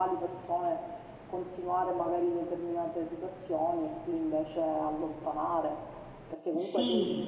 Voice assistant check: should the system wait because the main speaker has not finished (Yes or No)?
Yes